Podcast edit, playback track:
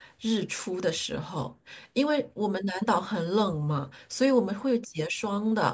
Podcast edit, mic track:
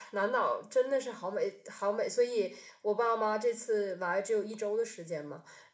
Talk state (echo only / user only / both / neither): user only